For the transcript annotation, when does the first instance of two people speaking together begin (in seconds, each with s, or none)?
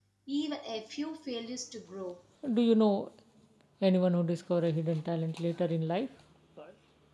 none